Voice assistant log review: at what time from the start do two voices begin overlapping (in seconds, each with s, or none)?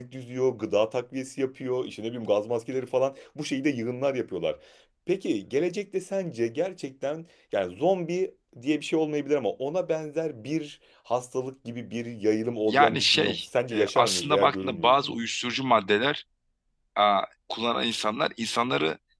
12.7 s